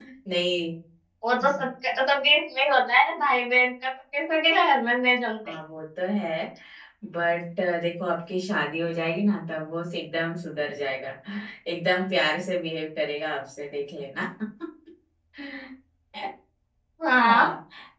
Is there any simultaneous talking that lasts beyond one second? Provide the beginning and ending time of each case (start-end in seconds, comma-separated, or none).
none